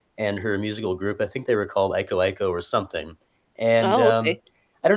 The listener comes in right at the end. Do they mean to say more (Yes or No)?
No